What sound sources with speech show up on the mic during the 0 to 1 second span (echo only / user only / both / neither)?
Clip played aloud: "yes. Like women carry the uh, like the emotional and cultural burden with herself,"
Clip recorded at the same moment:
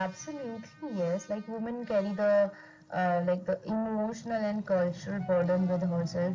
echo only